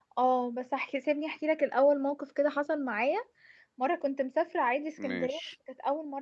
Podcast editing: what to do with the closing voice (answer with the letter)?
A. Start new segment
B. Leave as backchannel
B